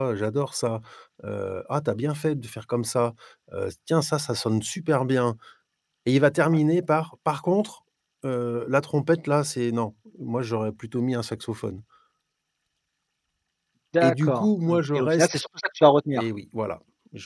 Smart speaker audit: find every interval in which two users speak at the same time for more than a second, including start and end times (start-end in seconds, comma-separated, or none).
14.0-15.3